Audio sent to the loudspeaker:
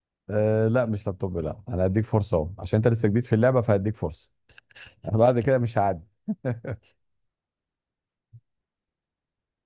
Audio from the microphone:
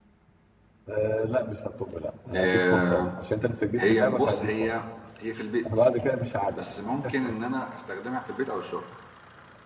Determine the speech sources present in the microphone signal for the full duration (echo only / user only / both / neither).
both